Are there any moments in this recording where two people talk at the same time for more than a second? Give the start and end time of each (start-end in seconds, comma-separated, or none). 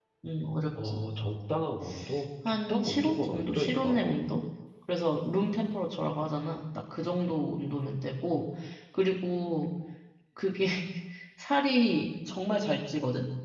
2.5-4.0